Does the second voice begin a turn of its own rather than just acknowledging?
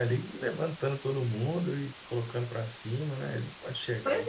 Yes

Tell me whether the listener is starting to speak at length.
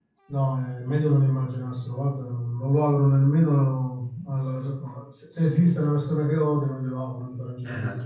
Yes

